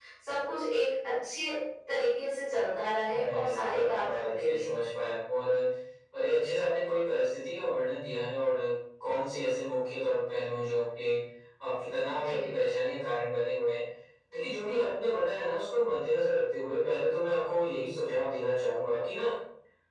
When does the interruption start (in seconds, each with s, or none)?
3.0 s